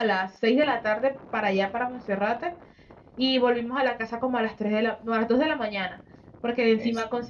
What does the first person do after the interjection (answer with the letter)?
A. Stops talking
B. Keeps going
B